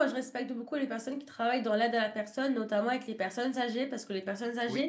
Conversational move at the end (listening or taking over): listening